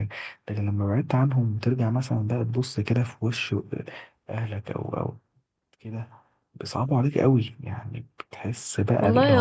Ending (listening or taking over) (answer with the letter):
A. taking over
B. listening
A